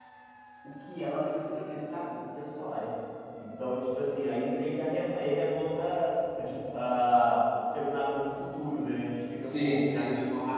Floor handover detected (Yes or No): No